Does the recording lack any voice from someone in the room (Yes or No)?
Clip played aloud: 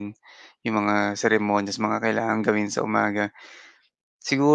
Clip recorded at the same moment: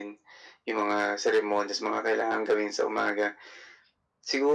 Yes